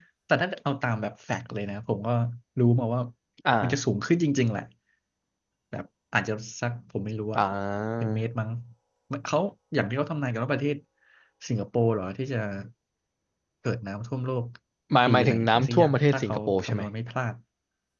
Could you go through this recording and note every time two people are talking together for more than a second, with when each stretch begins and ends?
15.1-16.8

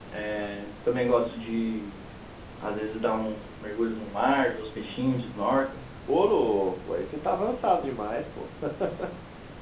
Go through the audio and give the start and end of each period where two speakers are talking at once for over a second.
none

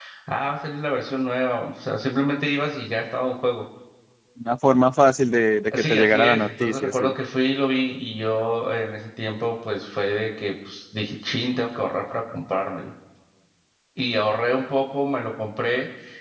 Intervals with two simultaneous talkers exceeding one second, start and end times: 5.7-7.1

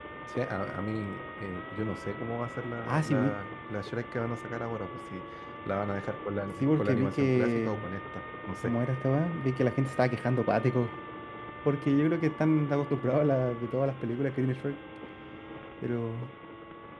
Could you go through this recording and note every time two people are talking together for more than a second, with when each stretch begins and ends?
6.6-7.9

